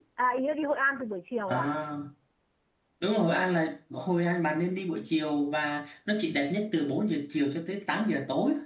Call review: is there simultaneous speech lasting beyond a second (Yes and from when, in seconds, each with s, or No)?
No